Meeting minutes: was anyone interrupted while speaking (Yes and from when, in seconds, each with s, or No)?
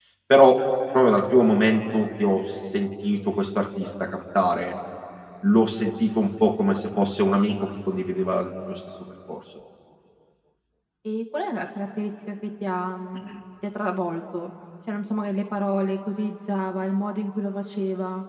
No